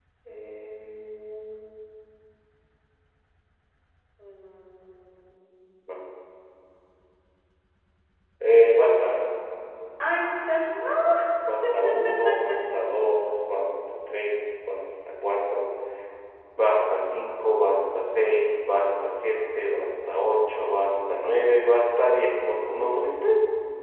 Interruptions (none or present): none